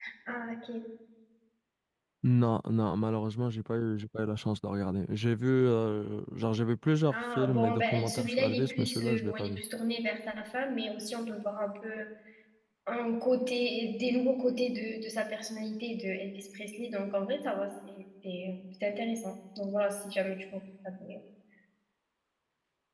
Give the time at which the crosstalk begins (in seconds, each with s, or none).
7.1 s